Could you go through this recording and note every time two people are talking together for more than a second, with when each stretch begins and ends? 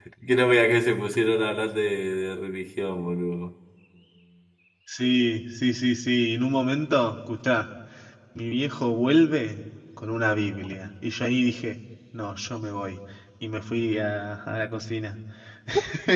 none

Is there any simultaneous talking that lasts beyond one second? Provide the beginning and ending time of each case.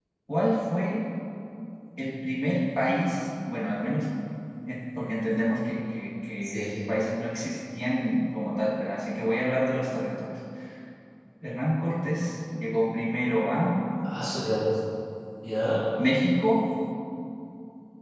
none

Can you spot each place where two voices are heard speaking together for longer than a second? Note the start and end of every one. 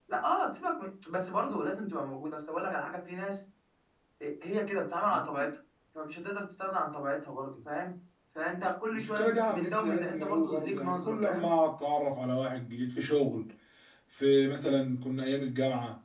8.9-11.5

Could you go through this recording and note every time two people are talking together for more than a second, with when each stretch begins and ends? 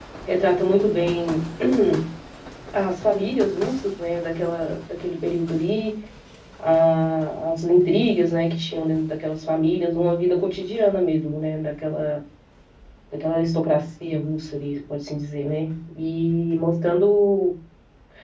none

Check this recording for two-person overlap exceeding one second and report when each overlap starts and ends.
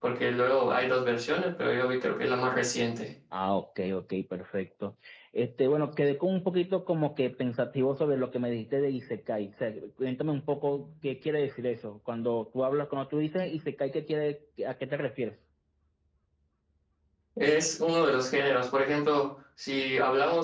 none

